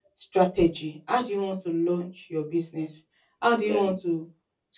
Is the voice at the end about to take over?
No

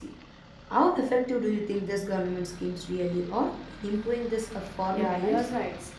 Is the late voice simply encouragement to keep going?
No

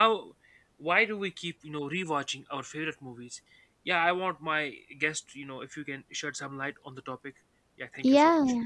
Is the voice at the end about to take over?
Yes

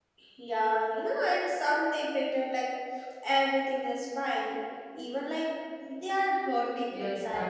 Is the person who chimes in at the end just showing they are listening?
No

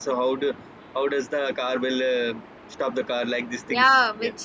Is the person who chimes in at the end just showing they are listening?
No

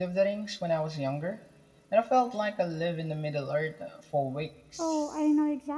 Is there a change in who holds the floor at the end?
Yes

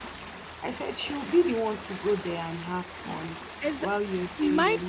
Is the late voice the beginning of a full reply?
Yes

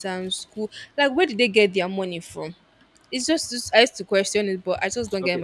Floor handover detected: Yes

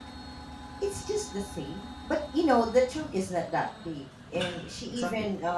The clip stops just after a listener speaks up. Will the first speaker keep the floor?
Yes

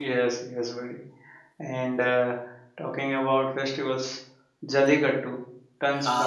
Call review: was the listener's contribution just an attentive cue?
Yes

